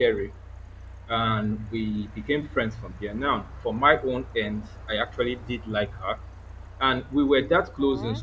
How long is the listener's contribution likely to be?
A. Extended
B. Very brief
B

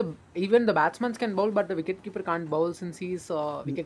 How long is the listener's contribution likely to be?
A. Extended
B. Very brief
A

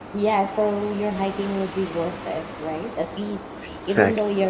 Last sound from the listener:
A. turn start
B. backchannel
B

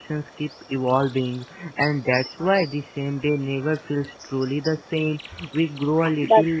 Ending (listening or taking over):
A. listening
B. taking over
A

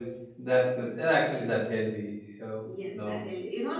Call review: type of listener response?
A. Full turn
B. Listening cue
A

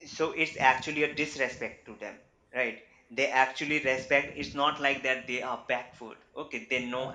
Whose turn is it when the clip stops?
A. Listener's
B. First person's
B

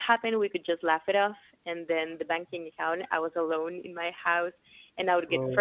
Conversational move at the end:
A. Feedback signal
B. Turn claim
A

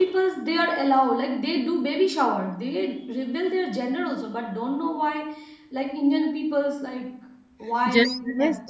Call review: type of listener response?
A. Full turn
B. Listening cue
A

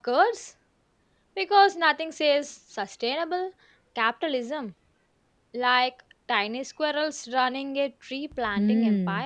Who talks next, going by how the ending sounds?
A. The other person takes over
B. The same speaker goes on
A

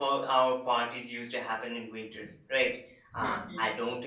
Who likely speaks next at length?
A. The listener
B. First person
B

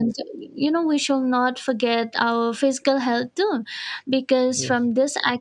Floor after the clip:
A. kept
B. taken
A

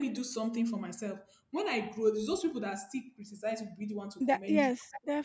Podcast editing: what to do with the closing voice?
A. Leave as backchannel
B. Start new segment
B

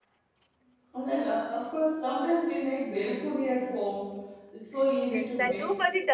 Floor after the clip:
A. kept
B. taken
B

